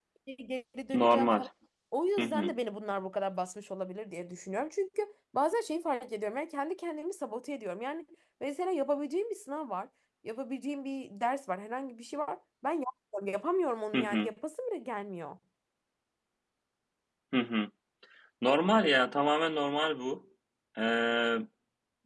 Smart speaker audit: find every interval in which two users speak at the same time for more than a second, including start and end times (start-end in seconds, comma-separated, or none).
none